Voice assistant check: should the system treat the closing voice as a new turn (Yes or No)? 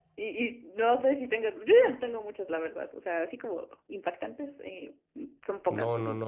Yes